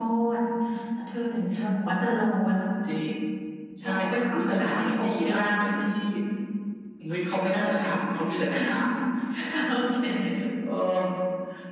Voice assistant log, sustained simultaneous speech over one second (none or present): present